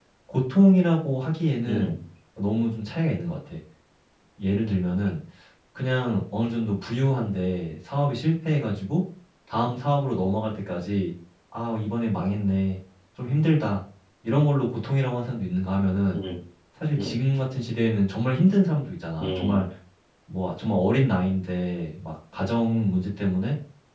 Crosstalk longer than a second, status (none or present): none